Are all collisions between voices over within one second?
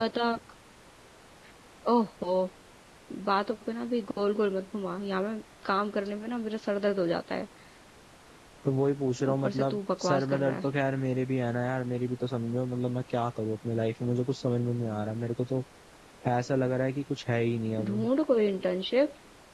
No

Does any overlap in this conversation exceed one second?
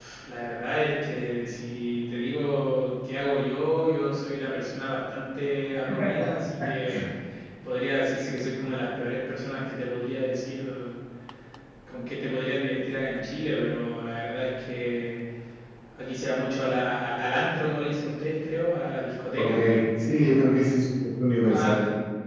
No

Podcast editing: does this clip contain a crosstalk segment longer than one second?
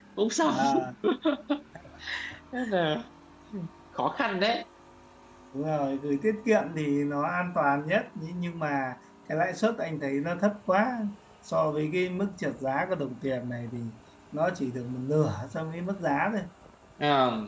No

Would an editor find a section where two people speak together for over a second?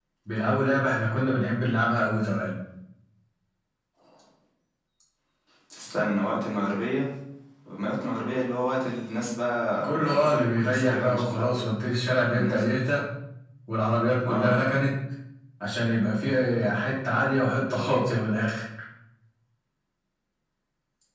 Yes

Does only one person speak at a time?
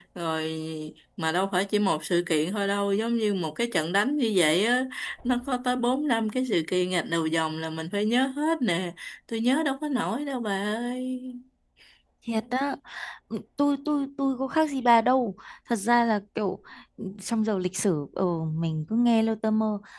Yes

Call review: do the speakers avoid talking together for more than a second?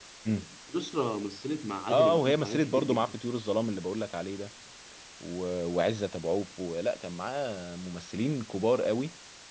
No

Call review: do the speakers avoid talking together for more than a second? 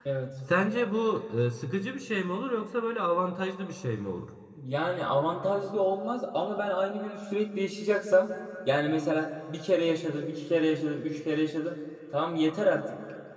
Yes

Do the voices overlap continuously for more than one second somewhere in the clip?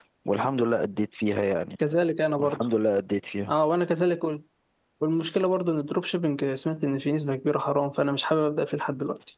No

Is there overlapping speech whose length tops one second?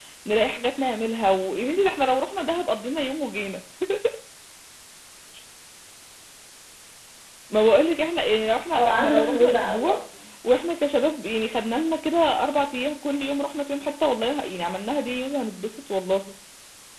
Yes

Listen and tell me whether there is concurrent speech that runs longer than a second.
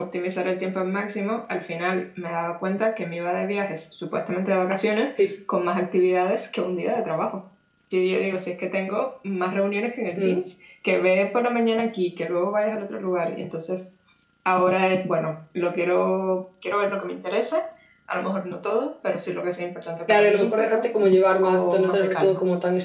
Yes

